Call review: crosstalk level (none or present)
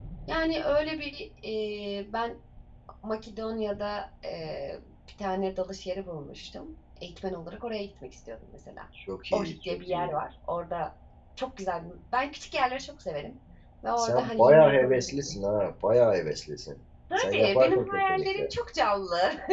present